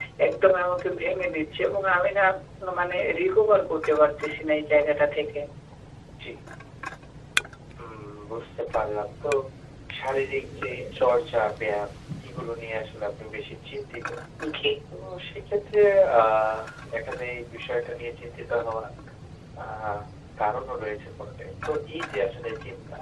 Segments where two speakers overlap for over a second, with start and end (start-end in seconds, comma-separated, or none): none